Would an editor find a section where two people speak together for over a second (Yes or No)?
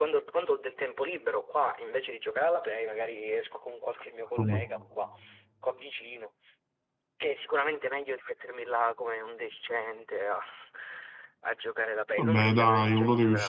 Yes